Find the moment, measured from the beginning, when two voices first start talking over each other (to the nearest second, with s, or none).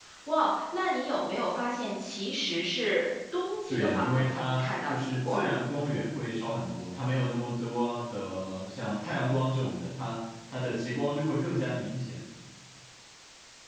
4 s